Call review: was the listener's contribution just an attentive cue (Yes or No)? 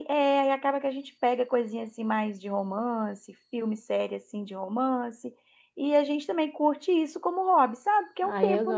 No